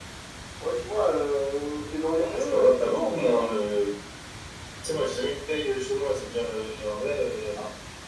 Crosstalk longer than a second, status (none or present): present